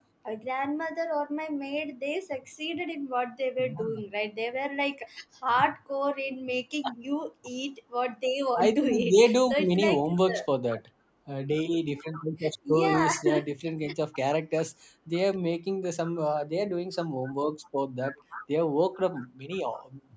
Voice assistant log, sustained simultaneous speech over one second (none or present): present